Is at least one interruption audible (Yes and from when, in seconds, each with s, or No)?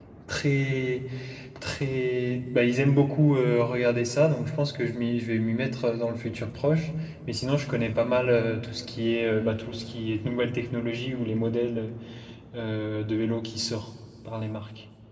No